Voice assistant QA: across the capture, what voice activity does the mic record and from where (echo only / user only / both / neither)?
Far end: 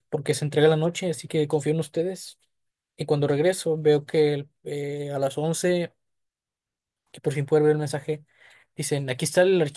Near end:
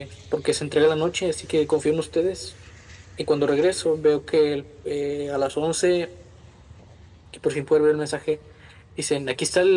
echo only